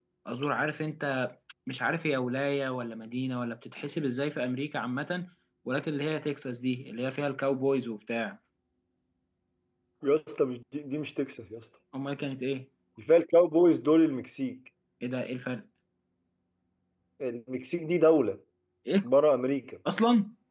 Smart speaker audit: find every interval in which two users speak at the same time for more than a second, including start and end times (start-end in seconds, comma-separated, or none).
none